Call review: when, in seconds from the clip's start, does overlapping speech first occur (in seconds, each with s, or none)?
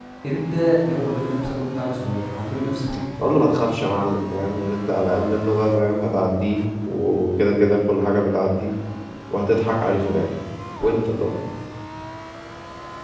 none